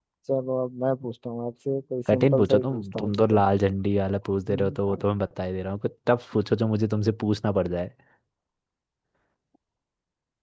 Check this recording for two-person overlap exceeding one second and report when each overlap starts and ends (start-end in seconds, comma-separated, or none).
2.1-3.4